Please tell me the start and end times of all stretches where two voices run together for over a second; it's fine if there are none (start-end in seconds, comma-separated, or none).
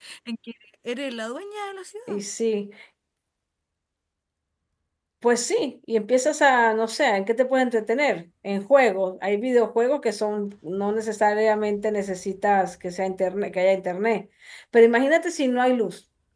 none